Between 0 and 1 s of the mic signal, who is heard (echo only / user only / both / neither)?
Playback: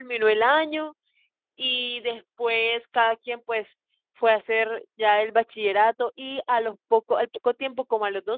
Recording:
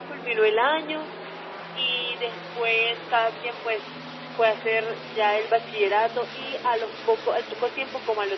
echo only